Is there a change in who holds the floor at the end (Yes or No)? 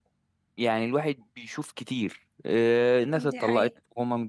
No